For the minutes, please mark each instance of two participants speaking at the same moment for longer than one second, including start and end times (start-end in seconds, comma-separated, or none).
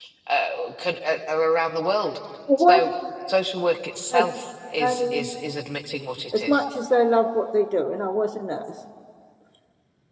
none